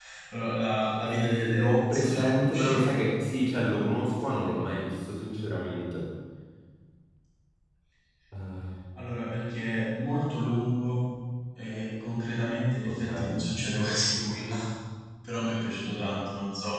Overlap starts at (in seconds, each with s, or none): 1.1 s